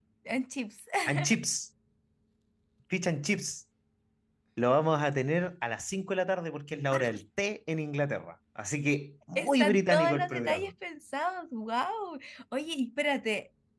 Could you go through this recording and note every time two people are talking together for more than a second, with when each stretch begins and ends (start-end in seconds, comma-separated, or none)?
9.3-10.7